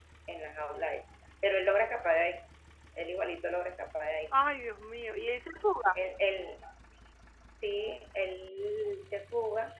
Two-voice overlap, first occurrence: none

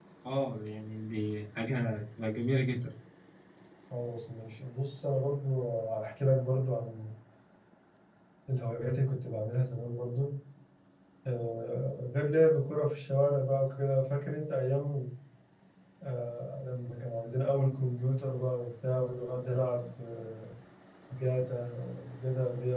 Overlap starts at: none

